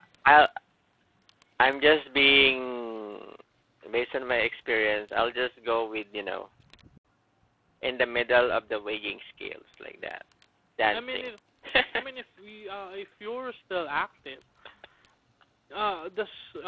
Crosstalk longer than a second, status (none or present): none